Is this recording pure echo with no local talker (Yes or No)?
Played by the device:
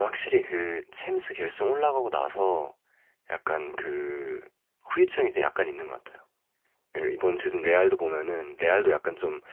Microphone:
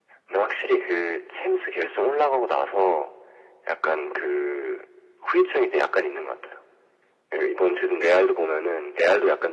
Yes